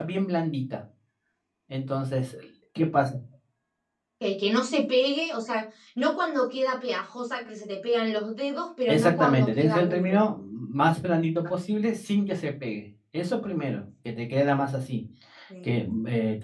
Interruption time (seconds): 8.9 s

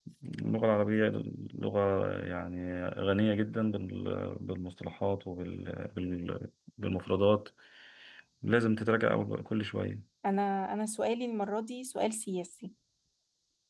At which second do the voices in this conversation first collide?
none

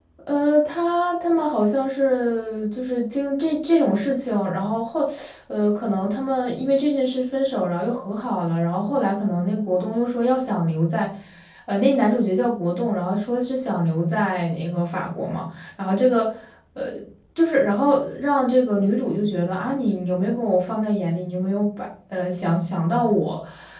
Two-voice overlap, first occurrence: none

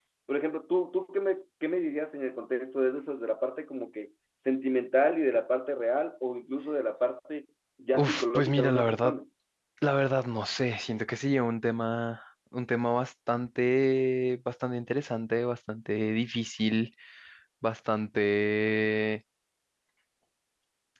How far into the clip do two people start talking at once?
8.0 s

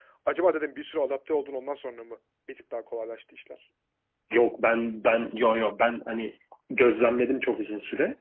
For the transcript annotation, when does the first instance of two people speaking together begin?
none

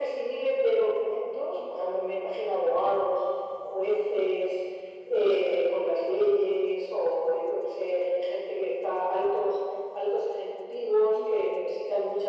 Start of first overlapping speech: none

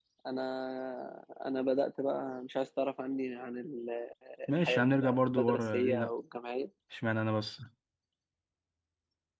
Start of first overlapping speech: 4.5 s

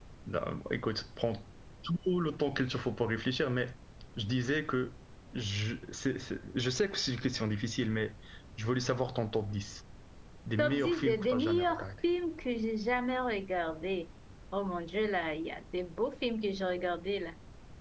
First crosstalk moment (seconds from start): 10.6 s

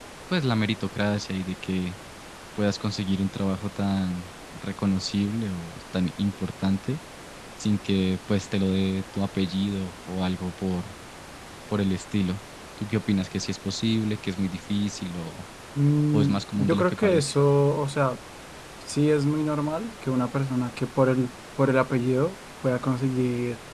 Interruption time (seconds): 16.1 s

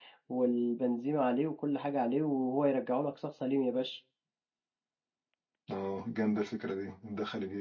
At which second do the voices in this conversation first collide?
none

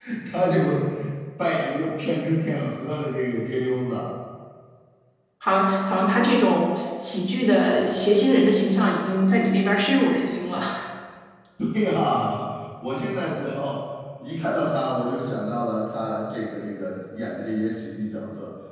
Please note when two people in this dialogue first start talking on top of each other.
none

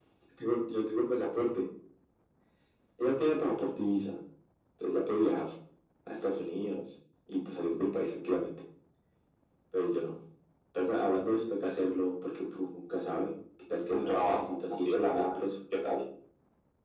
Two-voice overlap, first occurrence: 13.9 s

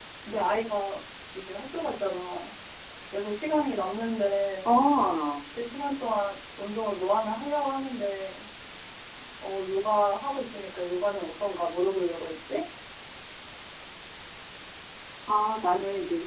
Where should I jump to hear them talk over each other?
none

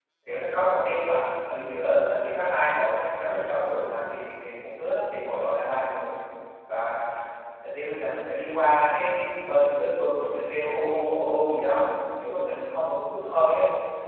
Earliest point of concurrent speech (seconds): none

